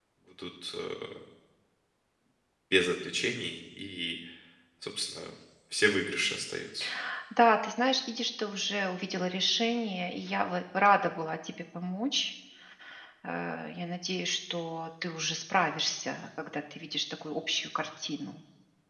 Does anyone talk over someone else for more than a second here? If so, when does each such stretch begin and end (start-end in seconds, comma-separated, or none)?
none